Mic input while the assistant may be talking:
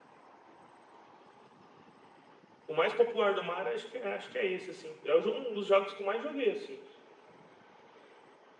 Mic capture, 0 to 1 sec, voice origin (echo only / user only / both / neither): neither